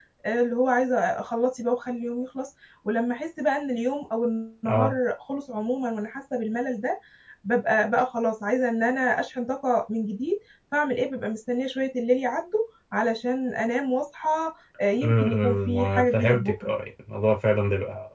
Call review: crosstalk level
present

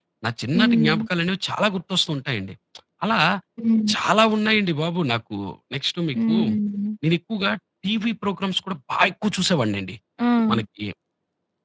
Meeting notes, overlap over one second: none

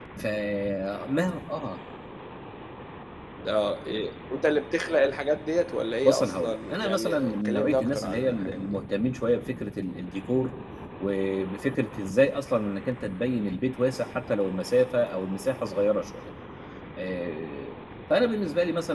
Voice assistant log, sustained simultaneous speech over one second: present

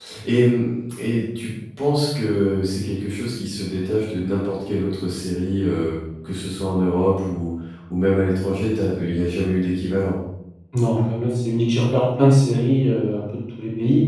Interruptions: none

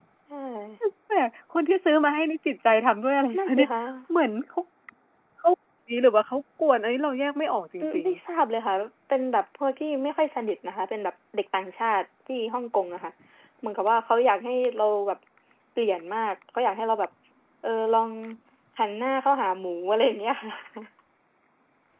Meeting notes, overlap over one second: none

